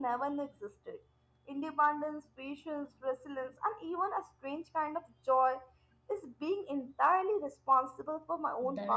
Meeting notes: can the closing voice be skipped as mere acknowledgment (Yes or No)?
No